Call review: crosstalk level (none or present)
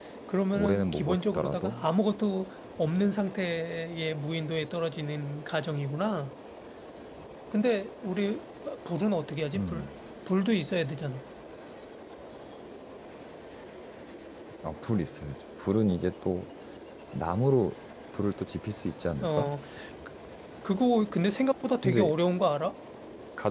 present